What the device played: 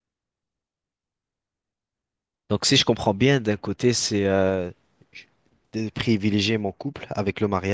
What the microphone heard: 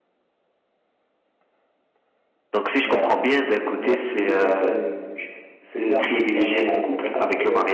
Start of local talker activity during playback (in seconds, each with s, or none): 2.8 s